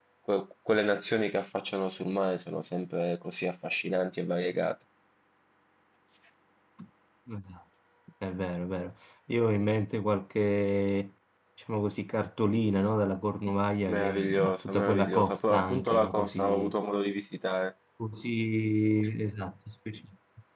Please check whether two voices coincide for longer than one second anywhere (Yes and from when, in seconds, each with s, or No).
Yes, from 13.9 s